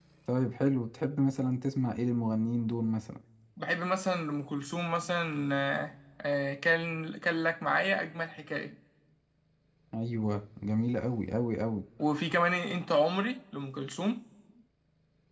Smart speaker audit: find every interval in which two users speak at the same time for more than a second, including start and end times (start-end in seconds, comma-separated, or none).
none